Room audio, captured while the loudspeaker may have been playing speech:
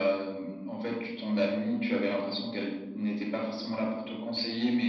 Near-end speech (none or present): none